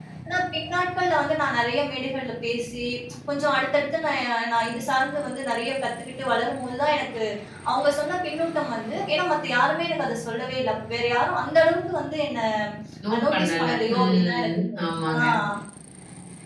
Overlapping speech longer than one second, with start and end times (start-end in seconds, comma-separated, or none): 13.1-15.2